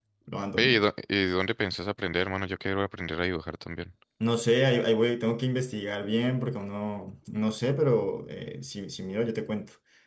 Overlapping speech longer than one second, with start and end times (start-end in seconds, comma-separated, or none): none